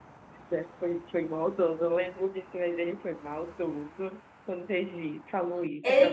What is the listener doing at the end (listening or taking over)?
taking over